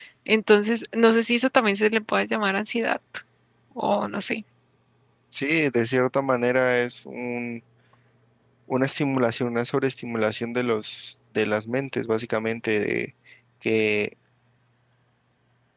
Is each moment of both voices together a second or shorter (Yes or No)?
Yes